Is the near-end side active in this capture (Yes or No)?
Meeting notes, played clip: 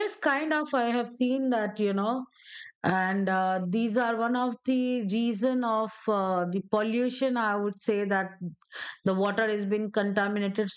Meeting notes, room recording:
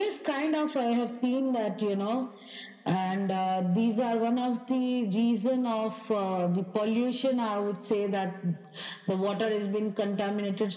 No